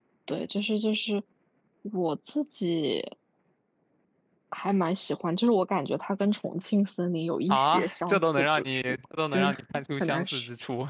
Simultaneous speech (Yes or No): Yes